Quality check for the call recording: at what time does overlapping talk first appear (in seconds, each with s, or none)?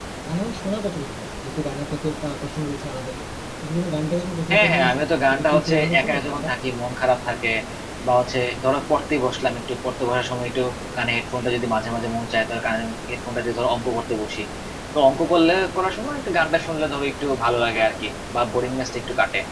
4.5 s